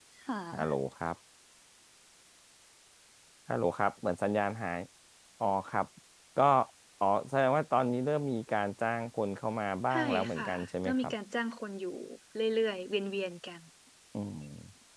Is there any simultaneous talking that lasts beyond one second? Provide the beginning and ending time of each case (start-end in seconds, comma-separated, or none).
9.9-11.1